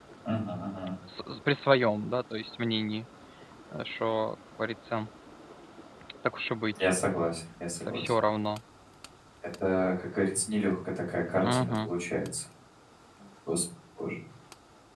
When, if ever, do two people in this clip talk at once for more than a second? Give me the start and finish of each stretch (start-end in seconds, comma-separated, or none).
none